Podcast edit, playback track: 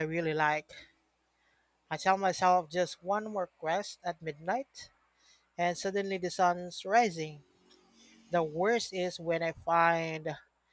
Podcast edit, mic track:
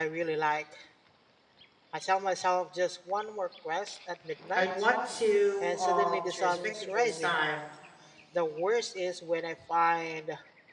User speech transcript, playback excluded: I'd want to um to respect people's time.

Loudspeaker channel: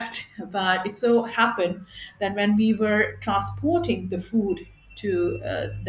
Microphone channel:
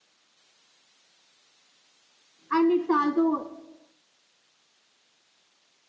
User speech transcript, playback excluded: and it's also

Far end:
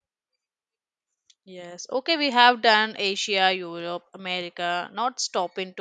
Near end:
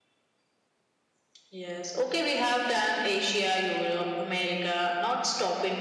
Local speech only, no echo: none

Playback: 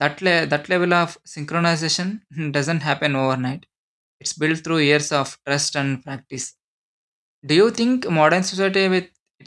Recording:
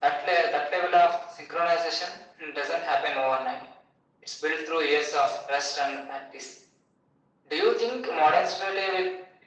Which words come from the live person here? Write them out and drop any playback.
none

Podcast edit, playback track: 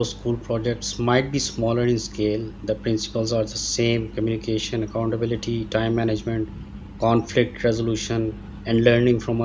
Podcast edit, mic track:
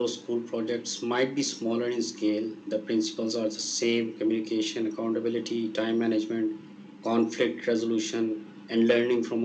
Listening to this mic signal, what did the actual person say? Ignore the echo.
none

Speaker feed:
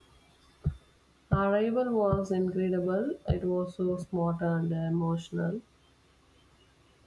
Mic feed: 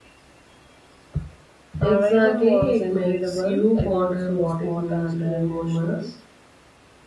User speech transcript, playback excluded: Exactly, it makes you ponder what it means to humans.

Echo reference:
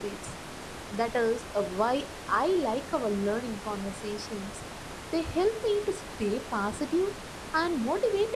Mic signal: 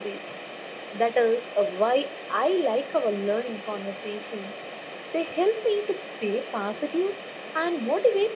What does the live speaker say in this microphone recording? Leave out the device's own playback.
none

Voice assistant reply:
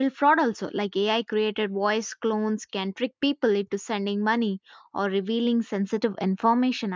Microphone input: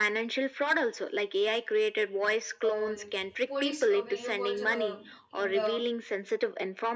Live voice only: uh, like police uh, video calls uh, in the

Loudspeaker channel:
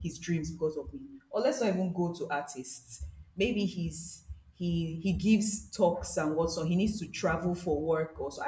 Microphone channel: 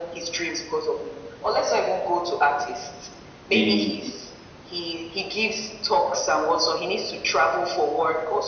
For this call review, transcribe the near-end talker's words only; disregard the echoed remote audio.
the

